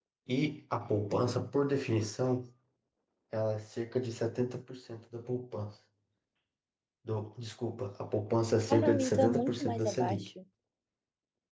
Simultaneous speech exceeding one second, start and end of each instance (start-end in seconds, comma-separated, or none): 8.7-10.3